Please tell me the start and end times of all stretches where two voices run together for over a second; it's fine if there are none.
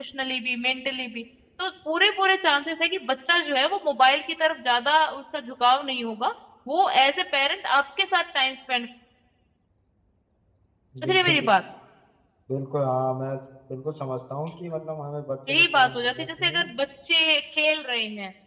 15.5-16.7

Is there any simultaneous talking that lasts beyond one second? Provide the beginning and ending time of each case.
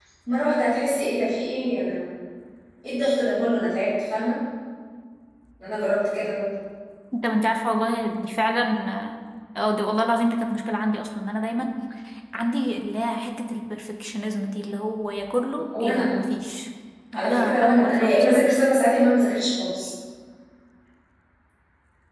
17.1-18.5

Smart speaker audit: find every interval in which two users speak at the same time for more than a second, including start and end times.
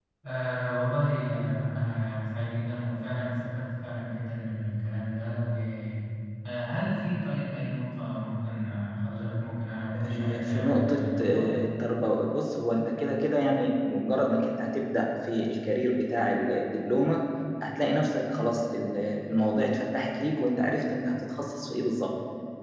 10.1-11.5

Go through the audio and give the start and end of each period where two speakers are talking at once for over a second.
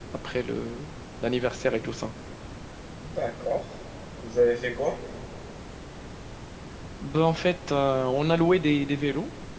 none

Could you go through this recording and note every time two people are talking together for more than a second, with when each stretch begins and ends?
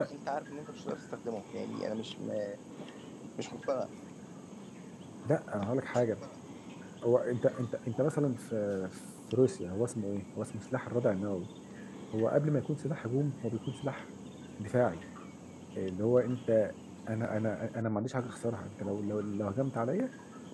none

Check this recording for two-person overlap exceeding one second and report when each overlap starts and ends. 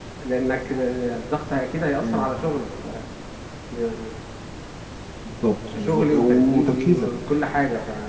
5.8-7.1

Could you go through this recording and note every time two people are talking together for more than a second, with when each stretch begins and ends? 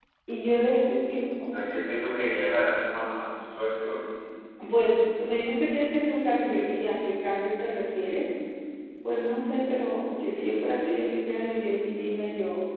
none

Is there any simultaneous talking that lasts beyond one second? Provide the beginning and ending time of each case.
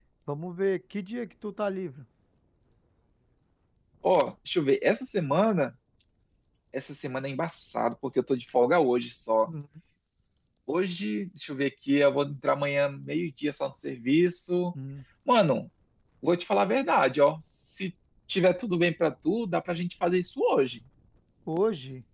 none

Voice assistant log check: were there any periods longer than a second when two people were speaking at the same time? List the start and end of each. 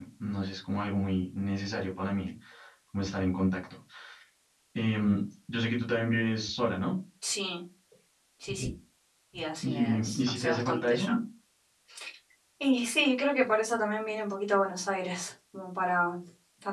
9.6-11.1

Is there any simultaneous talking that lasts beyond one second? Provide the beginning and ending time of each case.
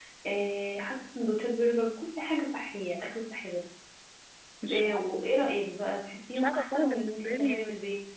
6.4-7.6

